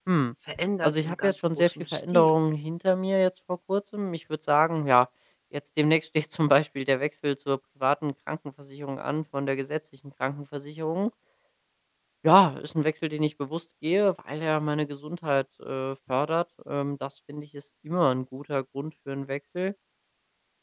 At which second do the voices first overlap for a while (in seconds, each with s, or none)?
0.8 s